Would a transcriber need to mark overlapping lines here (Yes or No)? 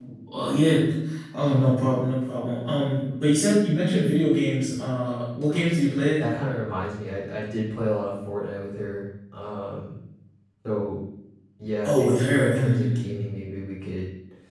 Yes